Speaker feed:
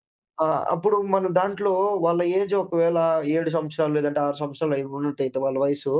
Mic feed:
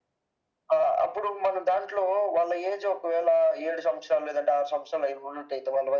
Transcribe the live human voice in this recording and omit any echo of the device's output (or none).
none